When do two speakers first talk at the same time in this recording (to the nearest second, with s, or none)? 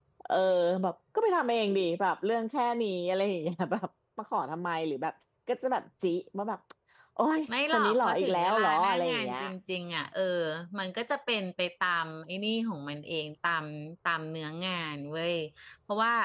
8 s